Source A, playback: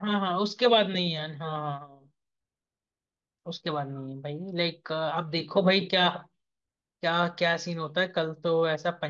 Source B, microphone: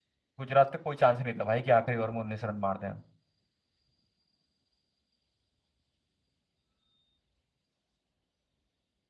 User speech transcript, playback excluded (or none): गुजरात का कोई चांस नहीं था भाई कि आखिरी ओवर में उन्नीस रन मार दें